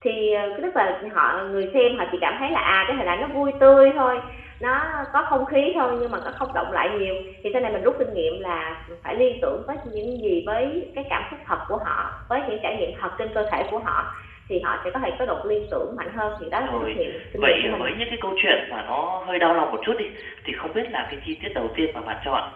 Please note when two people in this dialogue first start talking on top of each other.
16.6 s

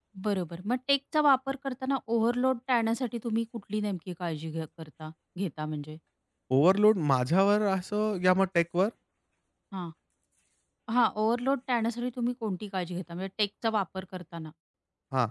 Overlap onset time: none

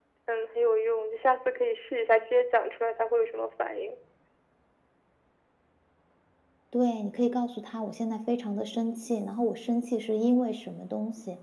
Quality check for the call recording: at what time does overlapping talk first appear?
none

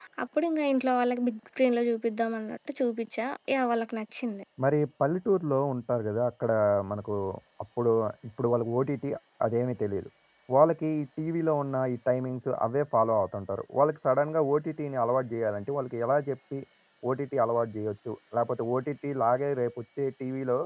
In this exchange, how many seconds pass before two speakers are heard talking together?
none

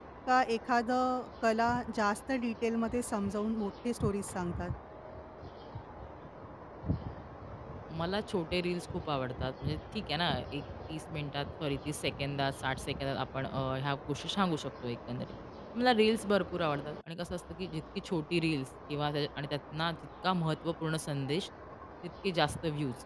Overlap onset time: none

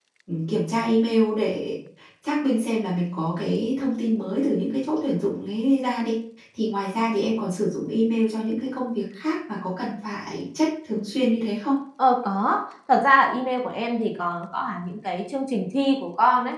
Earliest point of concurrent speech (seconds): none

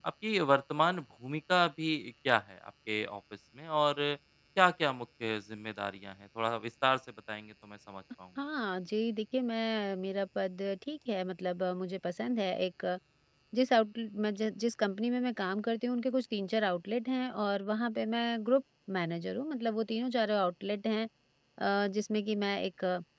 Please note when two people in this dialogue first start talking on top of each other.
none

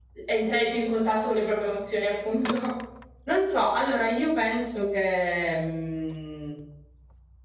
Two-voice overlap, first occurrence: none

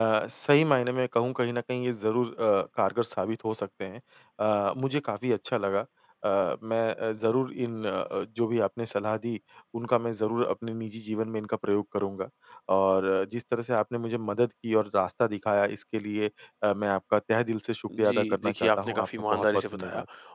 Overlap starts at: 17.9 s

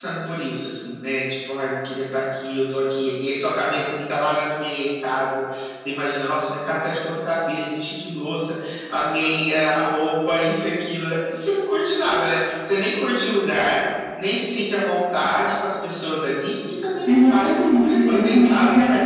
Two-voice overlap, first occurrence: 17.0 s

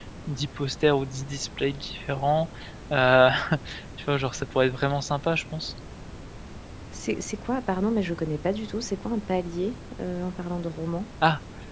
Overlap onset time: none

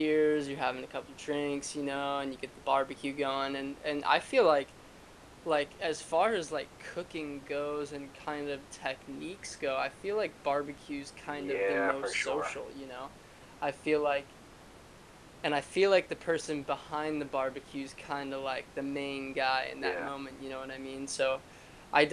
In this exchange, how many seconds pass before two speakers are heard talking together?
11.3 s

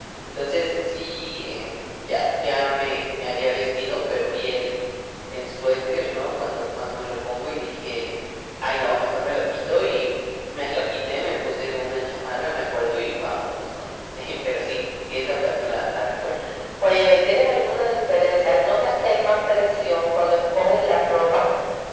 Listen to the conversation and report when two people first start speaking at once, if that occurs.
none

